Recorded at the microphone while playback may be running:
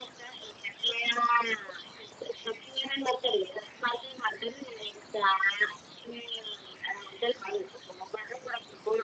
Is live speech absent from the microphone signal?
Yes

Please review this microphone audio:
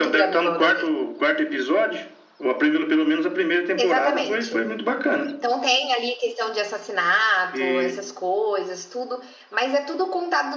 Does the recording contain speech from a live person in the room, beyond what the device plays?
Yes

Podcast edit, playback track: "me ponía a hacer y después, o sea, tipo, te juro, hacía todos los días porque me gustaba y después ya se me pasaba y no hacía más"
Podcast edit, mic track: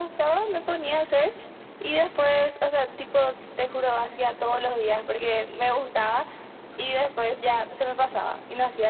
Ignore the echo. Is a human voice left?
No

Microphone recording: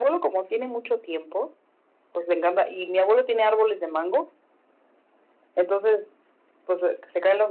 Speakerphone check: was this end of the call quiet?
Yes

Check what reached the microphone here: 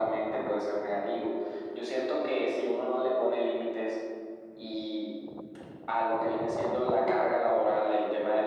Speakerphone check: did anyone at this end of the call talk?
No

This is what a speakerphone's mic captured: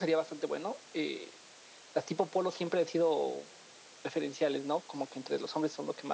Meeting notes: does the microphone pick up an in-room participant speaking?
No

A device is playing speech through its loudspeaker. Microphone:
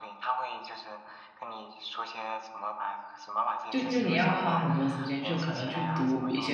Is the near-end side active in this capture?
Yes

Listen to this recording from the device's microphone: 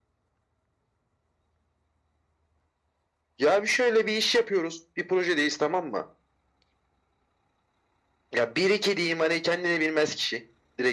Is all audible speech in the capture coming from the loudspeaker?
Yes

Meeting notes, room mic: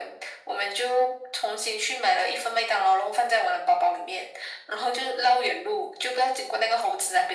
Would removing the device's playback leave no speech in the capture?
Yes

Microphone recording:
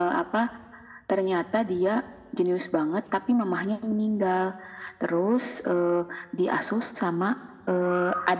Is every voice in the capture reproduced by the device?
Yes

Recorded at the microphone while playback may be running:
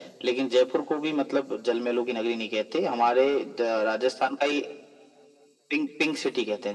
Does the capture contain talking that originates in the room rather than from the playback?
No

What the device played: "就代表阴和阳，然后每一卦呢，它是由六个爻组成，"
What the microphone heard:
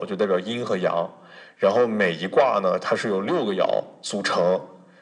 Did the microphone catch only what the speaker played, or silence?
Yes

